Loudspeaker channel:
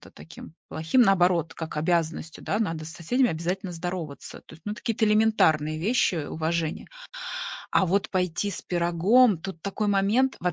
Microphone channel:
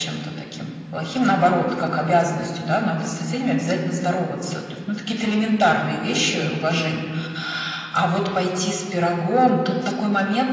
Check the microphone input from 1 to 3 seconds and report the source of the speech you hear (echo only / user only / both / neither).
echo only